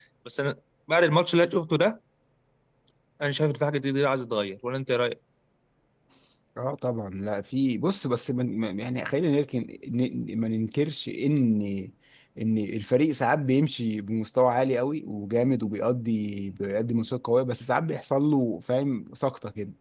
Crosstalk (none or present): none